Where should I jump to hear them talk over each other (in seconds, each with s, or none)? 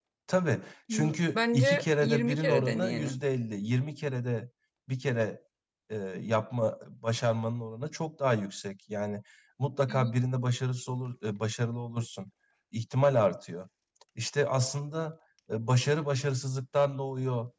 0.9 s